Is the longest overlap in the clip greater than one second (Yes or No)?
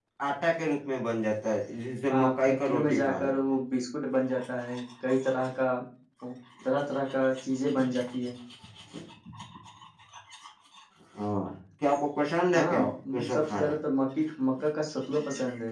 Yes